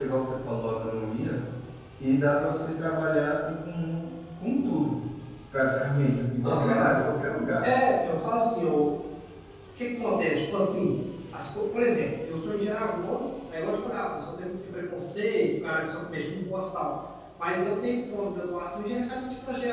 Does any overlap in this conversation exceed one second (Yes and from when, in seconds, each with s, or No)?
No